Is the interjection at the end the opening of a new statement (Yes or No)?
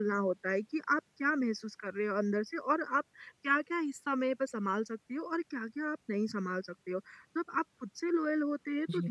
No